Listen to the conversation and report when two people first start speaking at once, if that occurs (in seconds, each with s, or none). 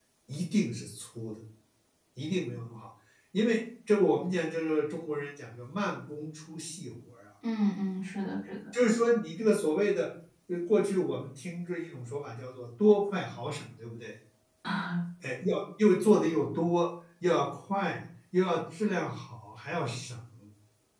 none